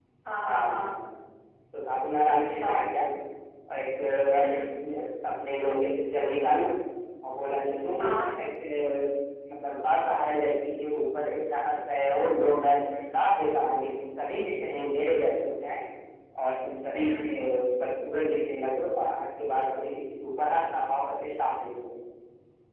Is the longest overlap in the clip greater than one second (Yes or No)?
No